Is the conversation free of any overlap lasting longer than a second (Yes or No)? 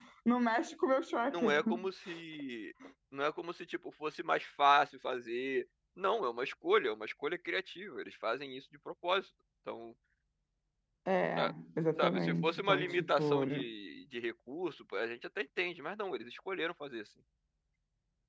No